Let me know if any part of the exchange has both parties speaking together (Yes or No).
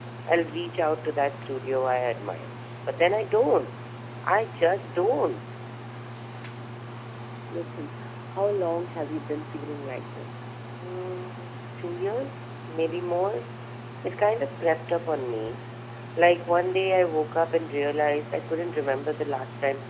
No